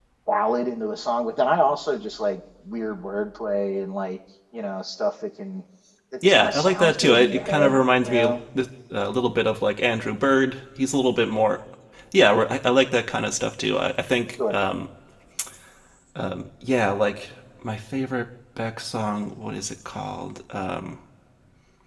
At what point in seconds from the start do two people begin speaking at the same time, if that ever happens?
6 s

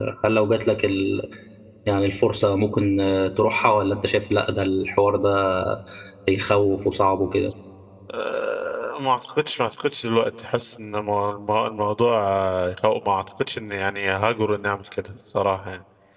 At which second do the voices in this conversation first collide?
none

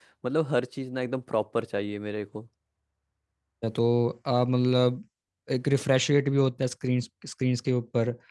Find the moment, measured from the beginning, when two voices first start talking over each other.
none

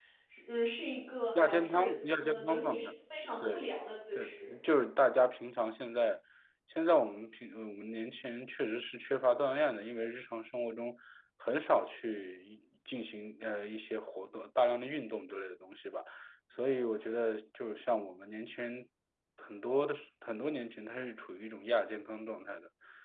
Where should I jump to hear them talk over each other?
1 s

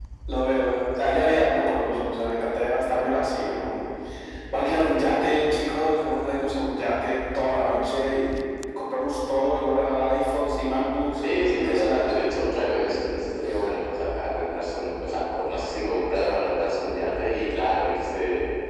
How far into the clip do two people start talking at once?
11 s

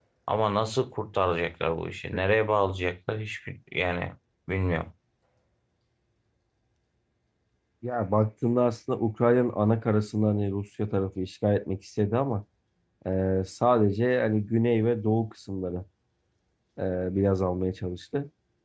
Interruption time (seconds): none

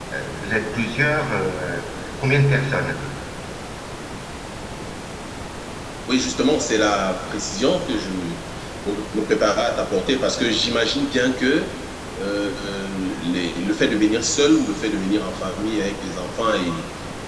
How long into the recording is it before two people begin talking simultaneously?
none

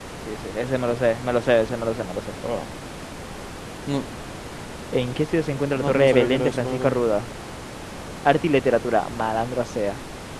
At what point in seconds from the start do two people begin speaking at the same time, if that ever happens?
6 s

